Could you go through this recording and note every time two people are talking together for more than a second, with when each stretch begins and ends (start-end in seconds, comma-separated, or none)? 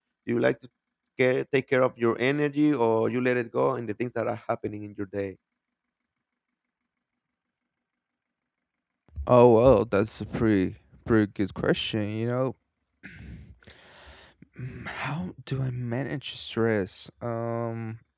none